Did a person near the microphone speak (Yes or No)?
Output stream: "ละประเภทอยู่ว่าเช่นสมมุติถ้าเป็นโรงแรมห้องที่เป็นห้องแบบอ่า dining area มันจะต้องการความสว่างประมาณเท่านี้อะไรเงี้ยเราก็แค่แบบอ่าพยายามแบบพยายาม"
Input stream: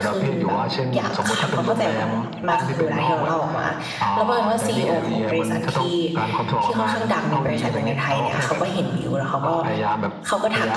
Yes